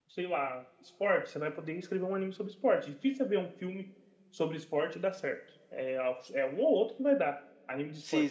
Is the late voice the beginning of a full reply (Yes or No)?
Yes